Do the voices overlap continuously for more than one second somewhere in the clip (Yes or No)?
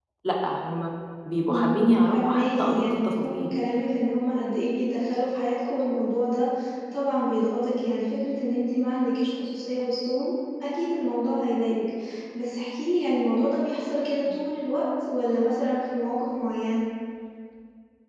Yes